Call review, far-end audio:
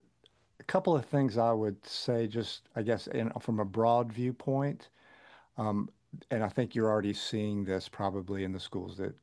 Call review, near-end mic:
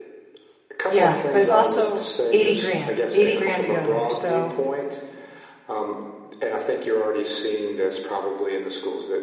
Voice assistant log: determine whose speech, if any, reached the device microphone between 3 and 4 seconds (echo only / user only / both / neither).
both